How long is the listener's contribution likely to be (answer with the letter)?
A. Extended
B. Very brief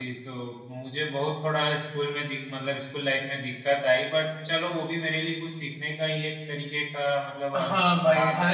A